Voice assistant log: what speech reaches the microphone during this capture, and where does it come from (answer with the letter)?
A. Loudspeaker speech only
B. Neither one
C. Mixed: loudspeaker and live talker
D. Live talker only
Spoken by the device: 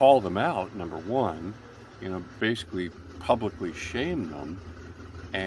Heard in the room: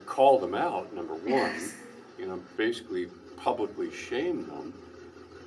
C